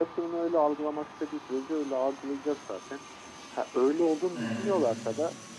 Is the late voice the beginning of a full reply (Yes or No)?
No